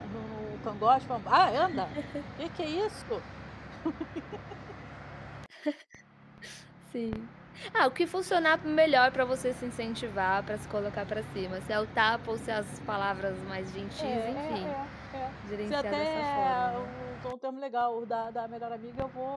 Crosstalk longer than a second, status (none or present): present